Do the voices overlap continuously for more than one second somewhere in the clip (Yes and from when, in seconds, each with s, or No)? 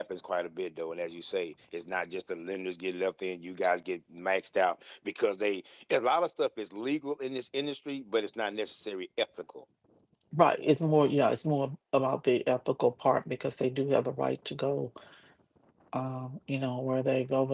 No